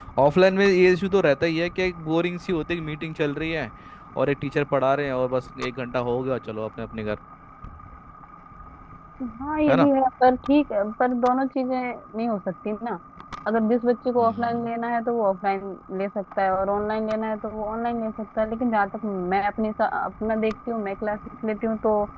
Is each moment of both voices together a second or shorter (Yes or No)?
Yes